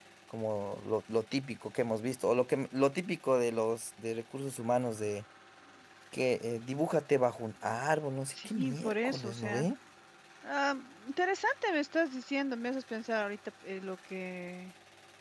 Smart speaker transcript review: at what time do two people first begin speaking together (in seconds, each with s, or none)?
8.3 s